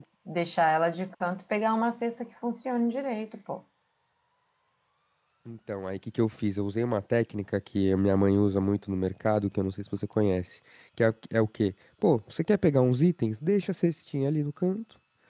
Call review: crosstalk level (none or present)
none